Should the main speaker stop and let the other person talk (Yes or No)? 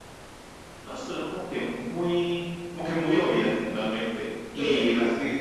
No